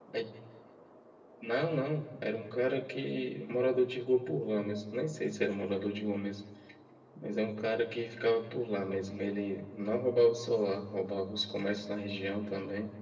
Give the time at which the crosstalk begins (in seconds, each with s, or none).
none